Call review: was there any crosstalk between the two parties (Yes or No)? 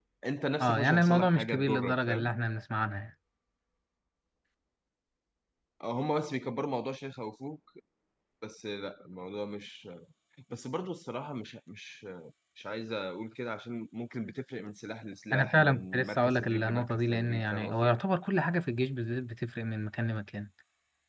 Yes